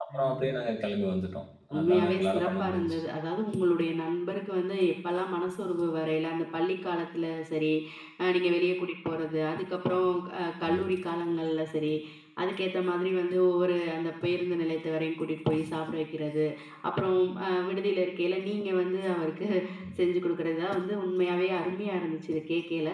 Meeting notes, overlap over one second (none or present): present